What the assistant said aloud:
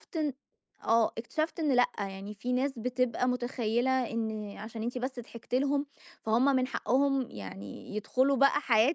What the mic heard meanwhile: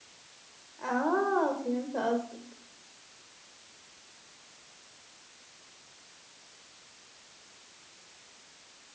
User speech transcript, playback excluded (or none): آه، فهمت قصدك.